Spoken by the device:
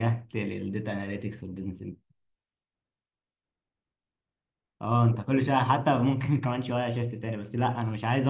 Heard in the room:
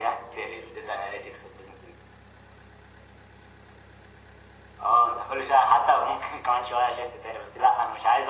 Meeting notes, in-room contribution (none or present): none